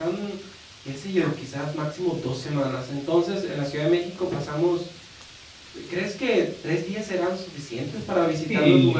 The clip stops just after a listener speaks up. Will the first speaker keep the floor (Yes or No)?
No